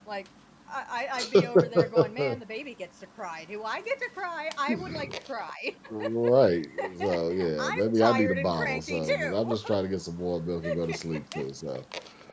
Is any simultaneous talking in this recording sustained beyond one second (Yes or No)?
Yes